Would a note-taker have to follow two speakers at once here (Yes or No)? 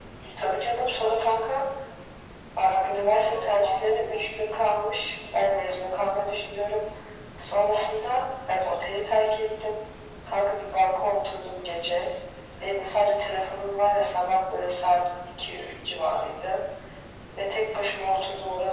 Yes